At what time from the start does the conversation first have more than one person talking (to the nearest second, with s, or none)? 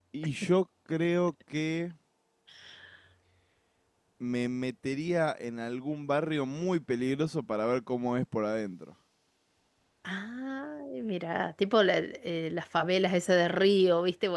none